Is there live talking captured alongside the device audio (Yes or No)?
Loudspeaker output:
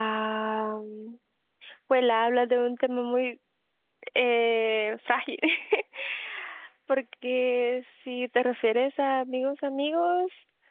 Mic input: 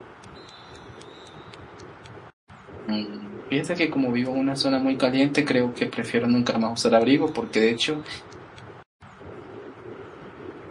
Yes